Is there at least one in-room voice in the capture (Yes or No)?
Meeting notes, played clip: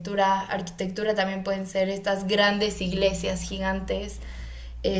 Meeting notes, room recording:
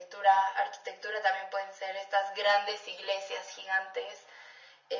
No